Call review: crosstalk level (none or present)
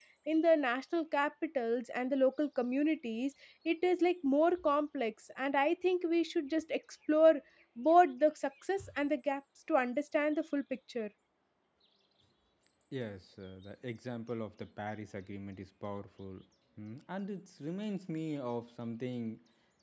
none